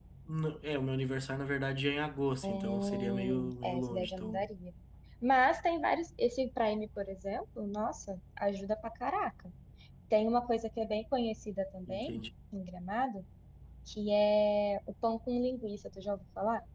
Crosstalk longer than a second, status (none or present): present